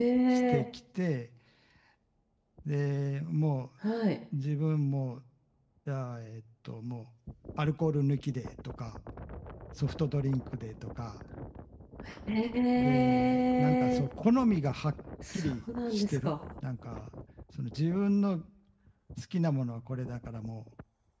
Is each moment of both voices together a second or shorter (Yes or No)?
No